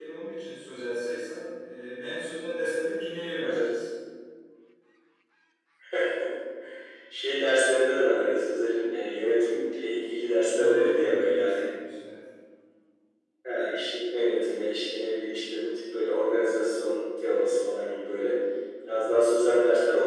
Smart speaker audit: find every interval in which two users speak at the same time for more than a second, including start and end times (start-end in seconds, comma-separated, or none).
10.4-11.7